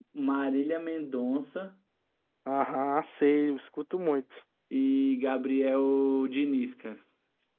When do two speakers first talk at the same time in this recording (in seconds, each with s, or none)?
none